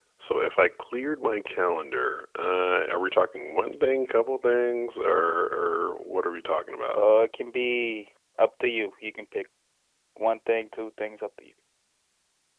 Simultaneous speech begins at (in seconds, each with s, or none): none